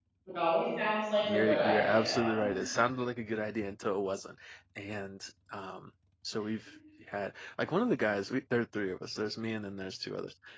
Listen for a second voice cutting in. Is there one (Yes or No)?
Yes